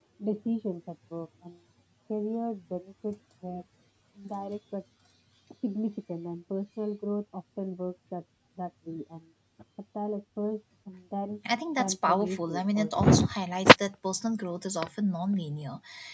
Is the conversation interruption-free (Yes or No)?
No